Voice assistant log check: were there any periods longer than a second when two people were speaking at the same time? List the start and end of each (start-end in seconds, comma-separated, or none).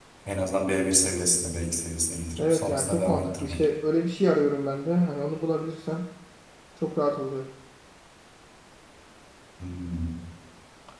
2.4-3.7